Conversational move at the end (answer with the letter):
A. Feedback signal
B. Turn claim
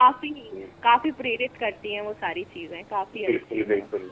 B